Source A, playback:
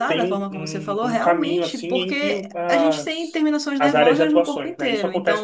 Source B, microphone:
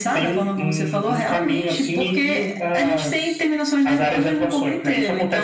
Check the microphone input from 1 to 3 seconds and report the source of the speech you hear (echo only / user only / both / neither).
echo only